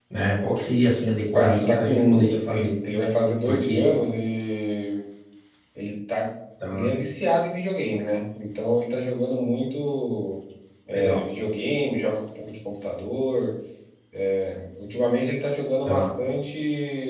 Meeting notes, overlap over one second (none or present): present